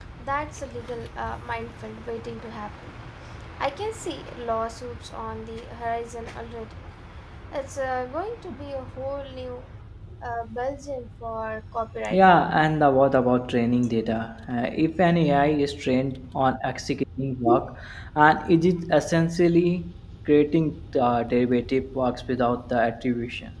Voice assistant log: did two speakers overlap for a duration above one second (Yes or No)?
No